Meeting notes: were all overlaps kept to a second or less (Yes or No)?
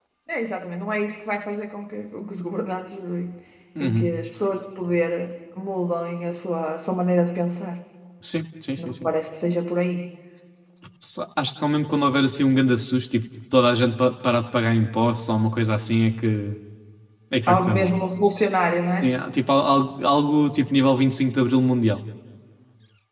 Yes